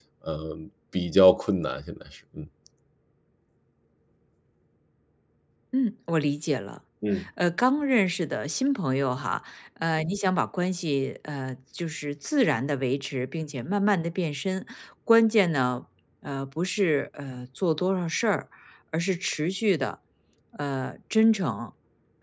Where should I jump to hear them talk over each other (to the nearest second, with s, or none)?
none